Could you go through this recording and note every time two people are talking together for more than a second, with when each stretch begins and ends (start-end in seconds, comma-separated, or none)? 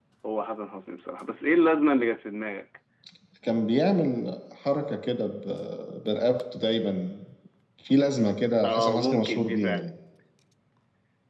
8.6-9.8